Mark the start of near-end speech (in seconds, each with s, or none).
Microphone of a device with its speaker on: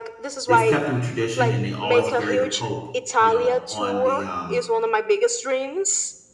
0.5 s